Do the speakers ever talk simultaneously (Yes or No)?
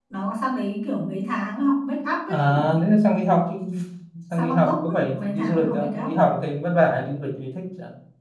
Yes